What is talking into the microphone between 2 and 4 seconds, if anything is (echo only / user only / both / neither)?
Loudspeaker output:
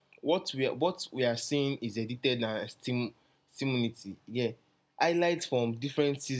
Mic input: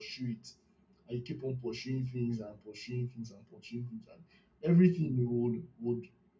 user only